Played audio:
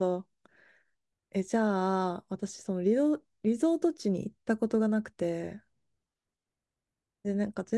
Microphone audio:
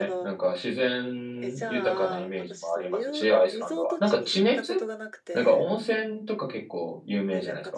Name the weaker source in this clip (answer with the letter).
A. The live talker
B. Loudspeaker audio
B